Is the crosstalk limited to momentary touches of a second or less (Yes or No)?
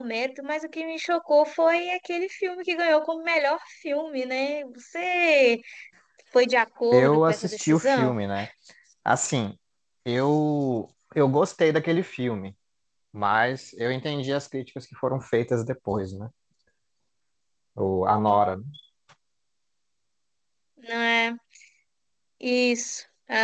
No